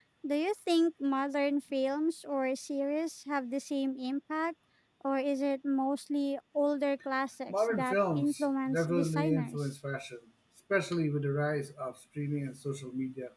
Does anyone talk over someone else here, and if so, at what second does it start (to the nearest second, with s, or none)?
7 s